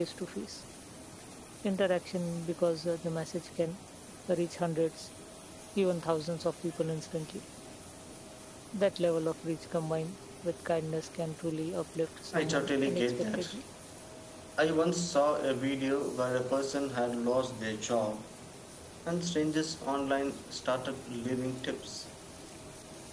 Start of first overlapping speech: 12.3 s

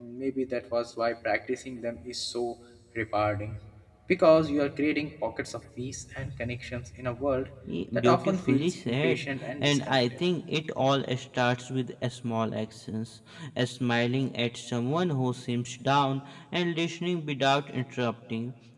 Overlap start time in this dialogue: 7.9 s

